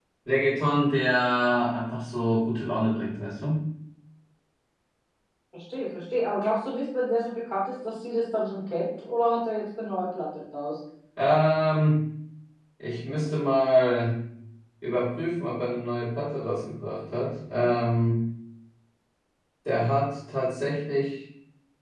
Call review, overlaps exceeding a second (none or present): none